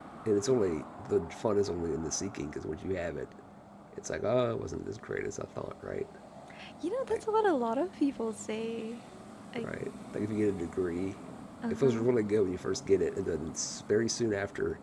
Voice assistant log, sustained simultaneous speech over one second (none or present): none